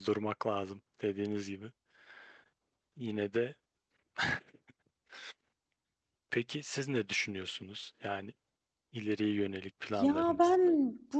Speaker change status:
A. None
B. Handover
B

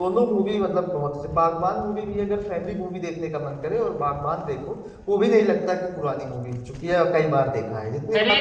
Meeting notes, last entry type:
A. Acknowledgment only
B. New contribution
B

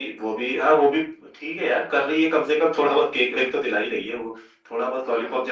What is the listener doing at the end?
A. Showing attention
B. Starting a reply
B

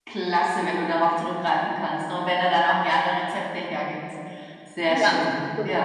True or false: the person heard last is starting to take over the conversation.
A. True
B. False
A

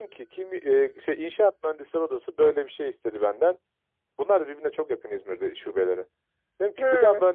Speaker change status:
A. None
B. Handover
A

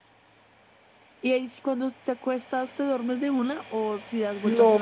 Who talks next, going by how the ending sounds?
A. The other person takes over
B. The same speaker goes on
A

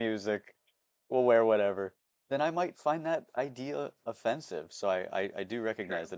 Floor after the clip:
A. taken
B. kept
B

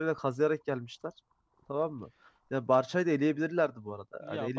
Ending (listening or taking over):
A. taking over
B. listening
A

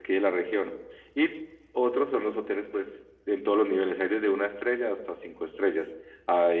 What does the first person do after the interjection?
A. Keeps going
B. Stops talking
A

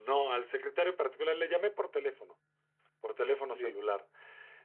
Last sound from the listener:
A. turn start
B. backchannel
B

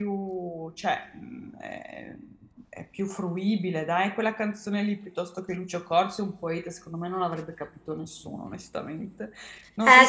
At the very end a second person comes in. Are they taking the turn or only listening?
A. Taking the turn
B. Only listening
A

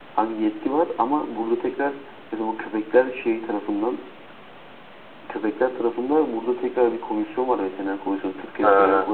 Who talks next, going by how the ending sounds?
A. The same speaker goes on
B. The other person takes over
A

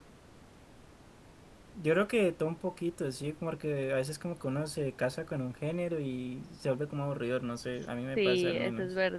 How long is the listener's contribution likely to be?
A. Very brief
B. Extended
B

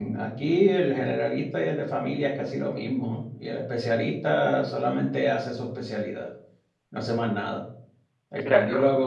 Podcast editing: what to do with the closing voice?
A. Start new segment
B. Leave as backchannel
B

